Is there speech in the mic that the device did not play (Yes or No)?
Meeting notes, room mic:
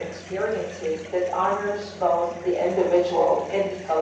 No